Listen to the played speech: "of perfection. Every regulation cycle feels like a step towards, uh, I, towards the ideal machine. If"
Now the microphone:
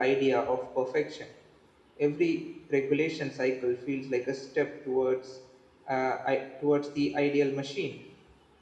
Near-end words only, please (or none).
none